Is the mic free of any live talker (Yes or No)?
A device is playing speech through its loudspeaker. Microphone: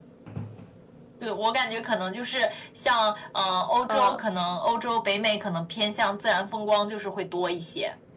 No